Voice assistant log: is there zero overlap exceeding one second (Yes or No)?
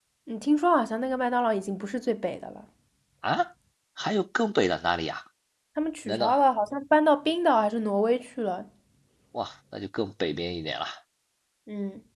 Yes